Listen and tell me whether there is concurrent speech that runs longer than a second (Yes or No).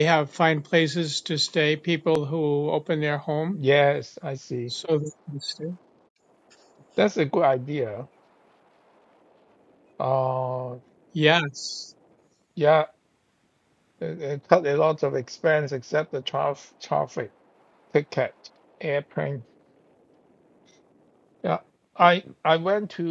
No